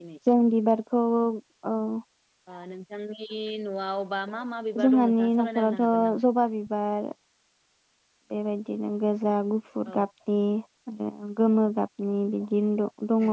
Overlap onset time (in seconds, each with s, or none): 4.8 s